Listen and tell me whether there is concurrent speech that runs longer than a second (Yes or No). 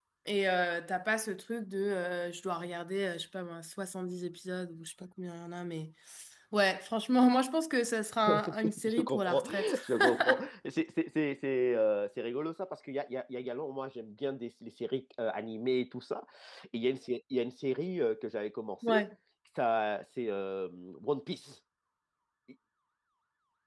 Yes